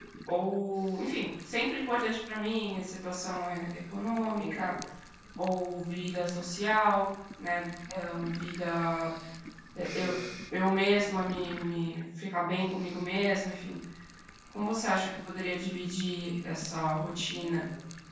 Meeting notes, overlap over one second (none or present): none